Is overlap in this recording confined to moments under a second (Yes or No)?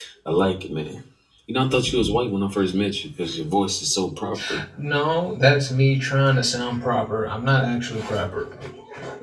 Yes